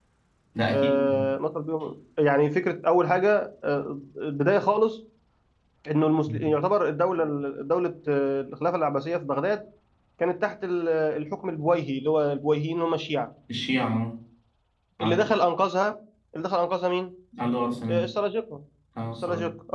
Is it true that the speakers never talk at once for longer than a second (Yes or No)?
Yes